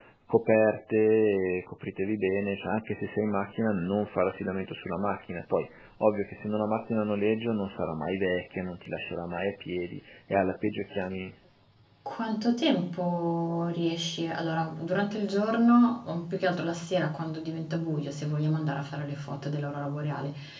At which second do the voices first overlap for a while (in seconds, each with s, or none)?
none